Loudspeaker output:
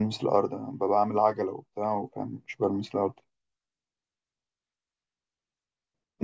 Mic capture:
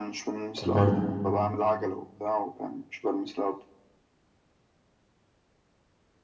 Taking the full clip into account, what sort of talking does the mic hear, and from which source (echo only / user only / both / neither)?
both